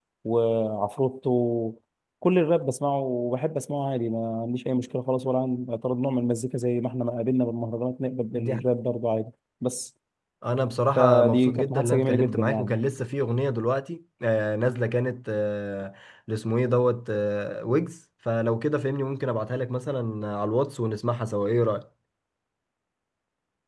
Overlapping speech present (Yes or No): Yes